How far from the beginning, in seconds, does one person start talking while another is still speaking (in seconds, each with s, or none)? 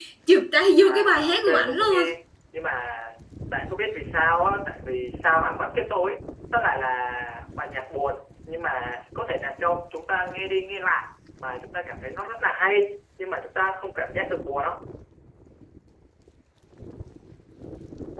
0.8 s